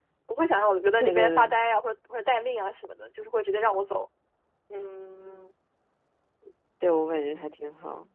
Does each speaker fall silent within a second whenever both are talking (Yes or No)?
Yes